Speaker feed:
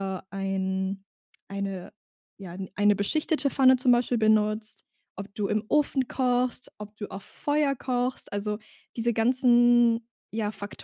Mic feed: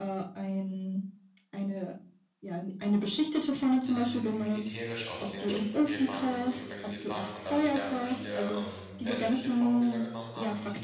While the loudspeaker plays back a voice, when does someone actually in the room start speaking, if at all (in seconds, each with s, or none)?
3.8 s